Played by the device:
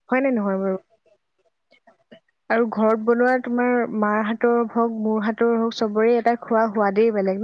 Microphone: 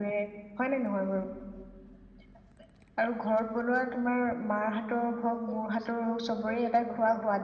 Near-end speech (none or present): present